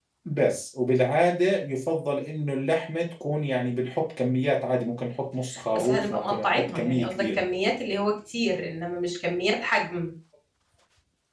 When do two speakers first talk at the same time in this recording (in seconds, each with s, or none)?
5.7 s